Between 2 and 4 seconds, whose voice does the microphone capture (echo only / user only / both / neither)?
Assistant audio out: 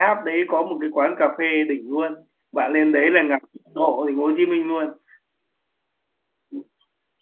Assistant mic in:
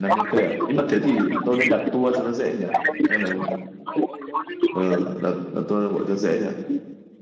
both